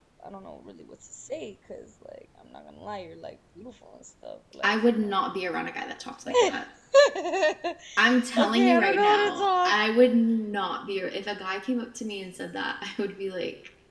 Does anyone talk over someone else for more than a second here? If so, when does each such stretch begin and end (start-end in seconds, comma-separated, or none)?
8.4-9.7